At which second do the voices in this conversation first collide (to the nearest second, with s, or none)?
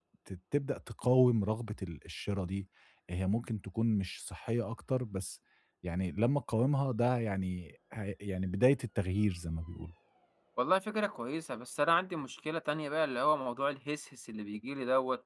none